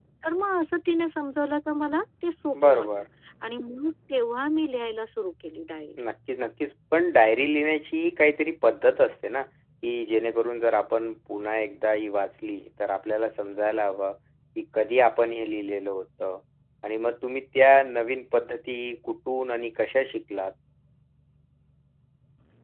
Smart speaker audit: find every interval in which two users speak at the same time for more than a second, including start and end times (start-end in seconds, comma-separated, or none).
none